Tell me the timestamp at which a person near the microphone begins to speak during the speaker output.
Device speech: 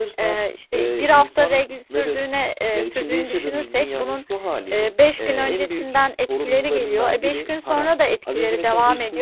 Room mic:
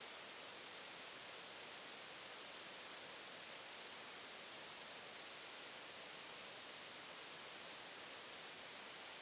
none

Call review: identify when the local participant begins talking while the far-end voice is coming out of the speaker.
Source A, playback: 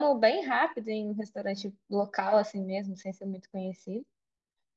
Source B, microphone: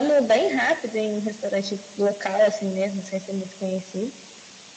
none

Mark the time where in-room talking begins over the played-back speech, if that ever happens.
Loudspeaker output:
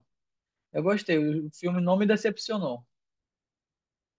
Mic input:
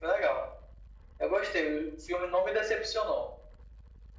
none

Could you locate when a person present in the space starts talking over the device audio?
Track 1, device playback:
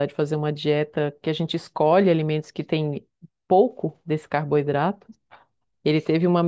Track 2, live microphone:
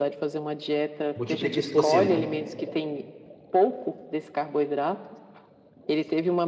1.1 s

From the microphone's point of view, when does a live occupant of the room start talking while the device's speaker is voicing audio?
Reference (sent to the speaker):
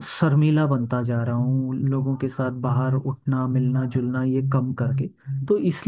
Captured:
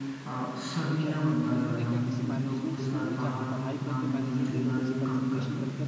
0.9 s

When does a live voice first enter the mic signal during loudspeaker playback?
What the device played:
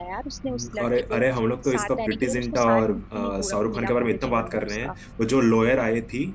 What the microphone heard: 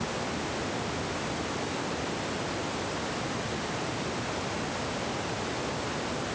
none

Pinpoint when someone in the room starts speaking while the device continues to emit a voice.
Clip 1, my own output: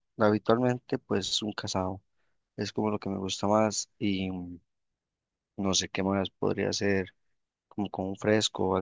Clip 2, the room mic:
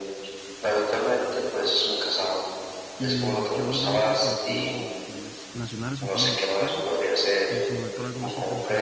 3.0 s

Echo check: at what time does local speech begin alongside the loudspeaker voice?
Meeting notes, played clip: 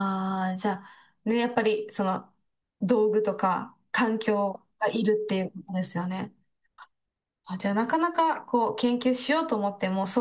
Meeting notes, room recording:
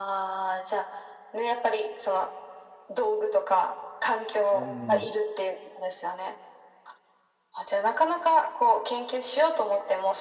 4.5 s

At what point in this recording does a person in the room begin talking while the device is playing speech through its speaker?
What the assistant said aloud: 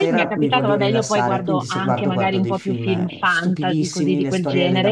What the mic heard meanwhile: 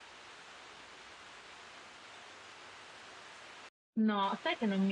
4.0 s

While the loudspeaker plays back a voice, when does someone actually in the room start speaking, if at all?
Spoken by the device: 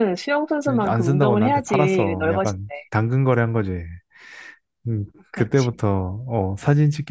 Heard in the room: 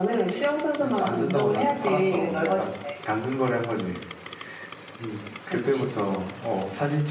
none

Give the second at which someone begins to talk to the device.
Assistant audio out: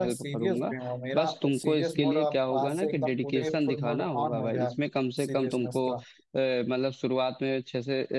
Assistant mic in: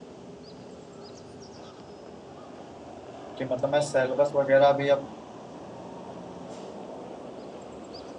3.4 s

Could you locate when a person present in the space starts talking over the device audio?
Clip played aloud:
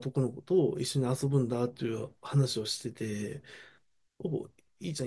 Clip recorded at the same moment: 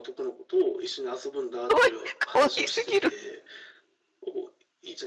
1.7 s

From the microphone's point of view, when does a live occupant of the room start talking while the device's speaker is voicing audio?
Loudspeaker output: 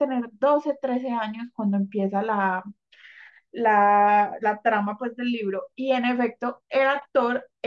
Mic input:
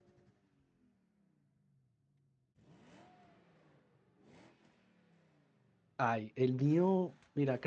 6.0 s

